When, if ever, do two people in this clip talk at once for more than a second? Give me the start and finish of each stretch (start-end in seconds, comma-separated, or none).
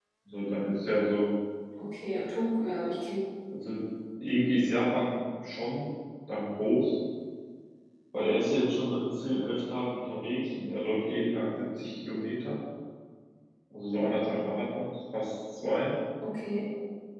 none